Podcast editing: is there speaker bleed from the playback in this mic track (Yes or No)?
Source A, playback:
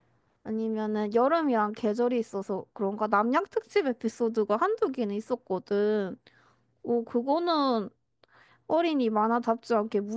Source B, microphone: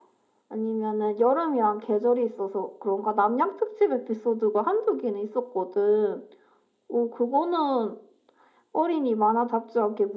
Yes